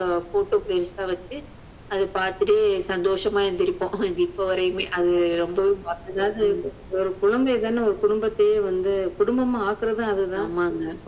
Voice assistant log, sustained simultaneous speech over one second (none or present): none